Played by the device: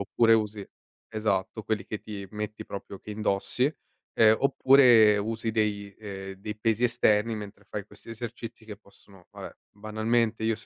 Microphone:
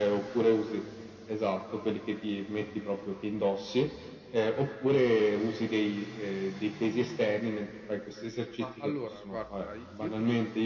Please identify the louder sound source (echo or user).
echo